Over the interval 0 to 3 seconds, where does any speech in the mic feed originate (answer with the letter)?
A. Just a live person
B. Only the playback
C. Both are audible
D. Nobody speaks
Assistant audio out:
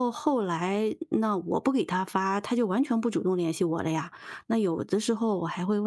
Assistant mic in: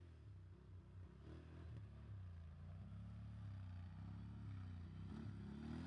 D